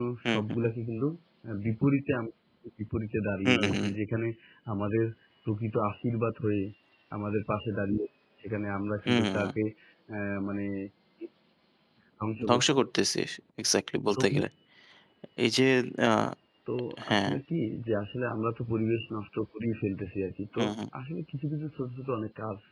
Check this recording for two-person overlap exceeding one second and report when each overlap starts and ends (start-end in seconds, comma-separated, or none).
none